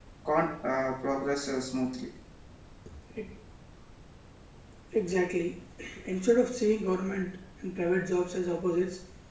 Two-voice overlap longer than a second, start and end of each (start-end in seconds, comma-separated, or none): none